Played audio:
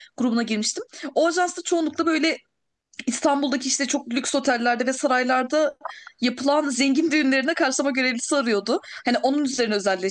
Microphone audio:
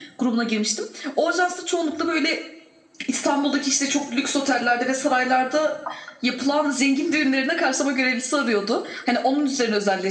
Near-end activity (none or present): none